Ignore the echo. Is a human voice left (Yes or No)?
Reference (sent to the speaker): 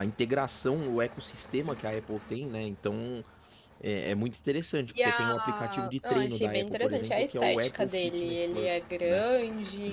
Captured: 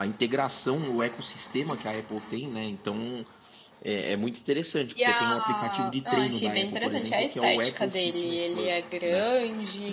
No